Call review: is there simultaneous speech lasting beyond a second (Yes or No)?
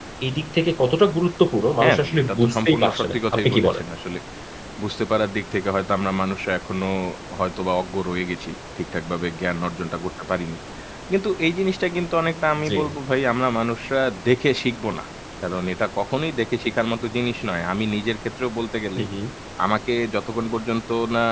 Yes